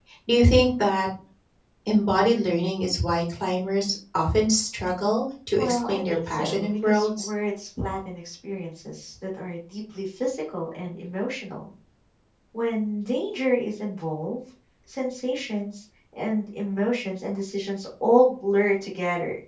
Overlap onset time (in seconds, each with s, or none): 5.6 s